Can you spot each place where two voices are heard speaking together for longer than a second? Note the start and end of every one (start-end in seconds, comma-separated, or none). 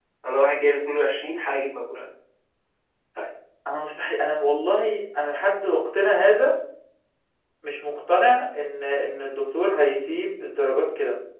none